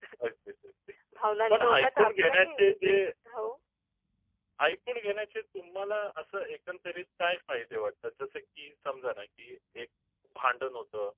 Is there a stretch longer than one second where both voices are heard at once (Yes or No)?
Yes